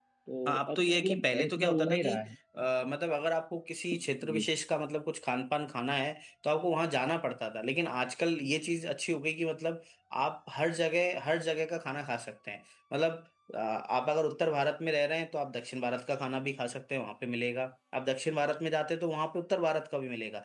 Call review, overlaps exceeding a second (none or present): present